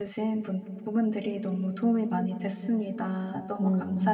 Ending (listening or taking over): taking over